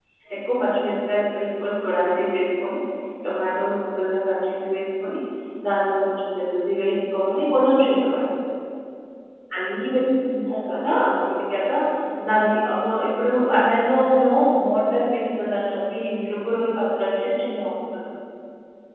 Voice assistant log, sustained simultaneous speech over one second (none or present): none